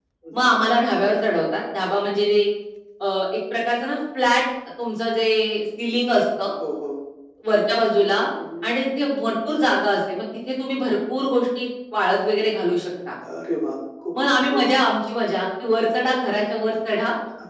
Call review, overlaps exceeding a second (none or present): none